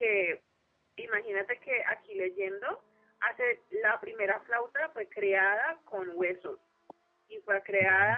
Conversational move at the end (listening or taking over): listening